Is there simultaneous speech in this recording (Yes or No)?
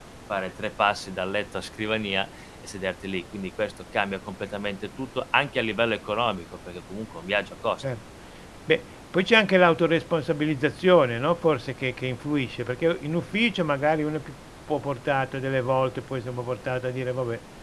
No